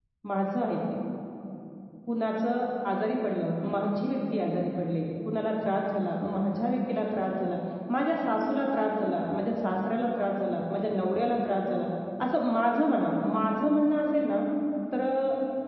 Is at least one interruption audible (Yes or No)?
No